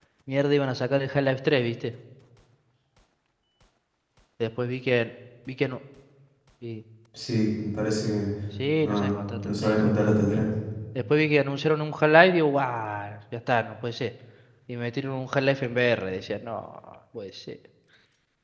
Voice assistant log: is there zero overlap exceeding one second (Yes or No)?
No